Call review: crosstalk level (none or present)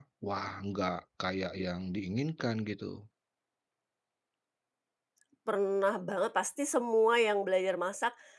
none